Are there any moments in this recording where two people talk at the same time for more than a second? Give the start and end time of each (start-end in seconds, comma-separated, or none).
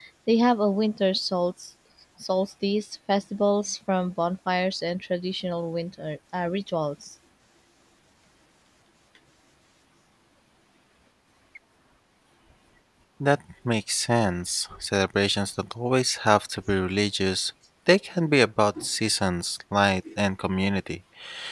none